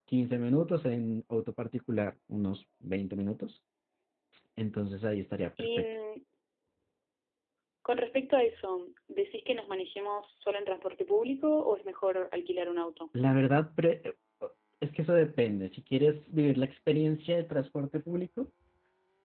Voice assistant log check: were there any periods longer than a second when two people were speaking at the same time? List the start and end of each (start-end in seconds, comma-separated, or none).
none